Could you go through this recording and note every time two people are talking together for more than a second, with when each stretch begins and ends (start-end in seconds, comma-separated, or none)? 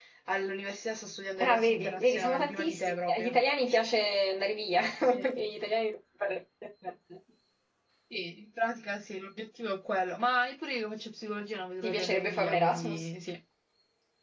1.4-3.4, 11.8-13.1